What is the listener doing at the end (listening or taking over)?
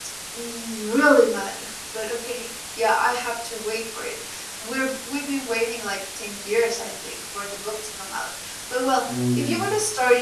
listening